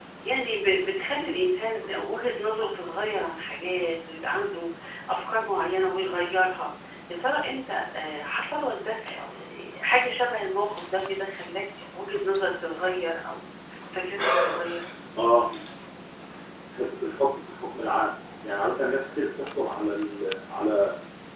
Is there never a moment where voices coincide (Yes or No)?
Yes